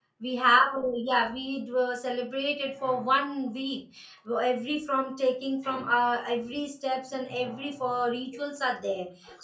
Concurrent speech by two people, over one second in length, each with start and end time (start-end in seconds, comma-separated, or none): none